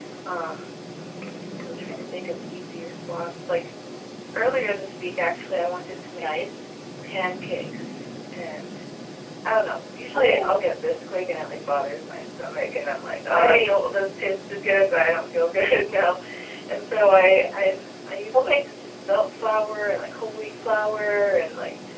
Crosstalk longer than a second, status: none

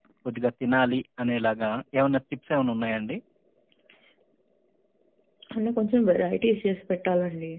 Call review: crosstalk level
none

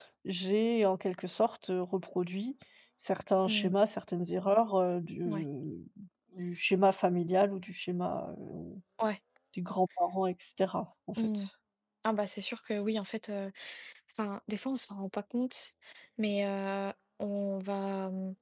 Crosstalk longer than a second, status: none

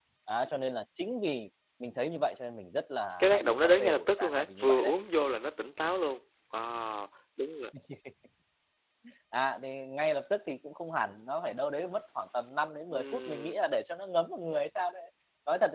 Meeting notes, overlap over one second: present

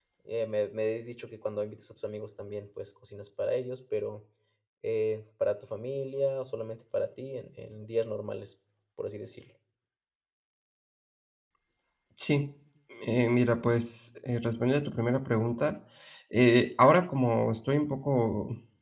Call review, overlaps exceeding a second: none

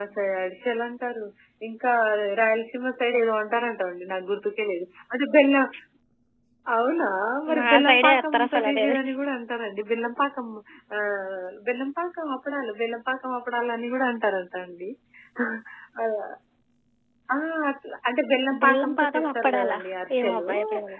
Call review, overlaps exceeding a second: present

